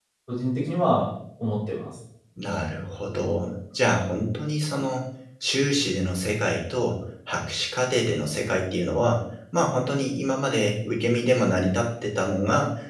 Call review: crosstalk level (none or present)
none